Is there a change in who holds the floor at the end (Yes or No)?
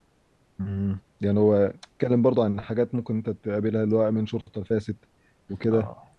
No